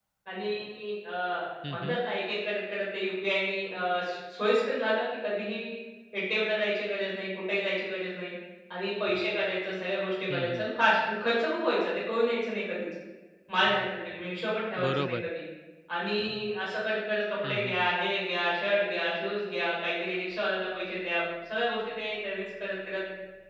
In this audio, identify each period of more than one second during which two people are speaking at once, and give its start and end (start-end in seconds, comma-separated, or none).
none